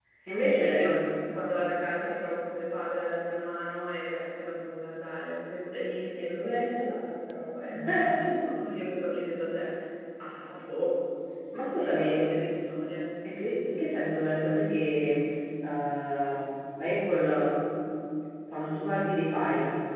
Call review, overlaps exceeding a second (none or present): none